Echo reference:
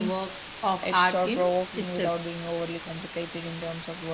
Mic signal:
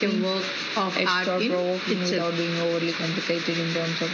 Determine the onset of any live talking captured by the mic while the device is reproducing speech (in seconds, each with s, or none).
none